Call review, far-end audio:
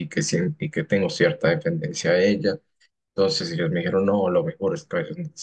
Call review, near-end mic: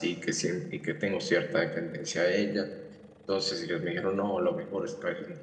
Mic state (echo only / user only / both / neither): echo only